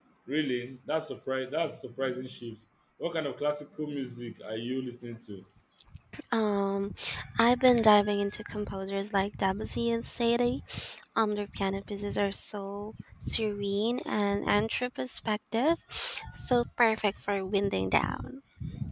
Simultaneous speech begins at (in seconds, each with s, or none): none